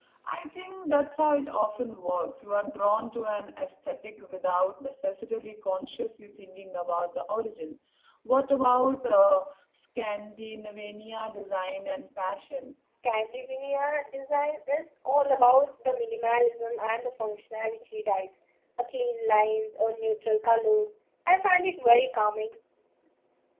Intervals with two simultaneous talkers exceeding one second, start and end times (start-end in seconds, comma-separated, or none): none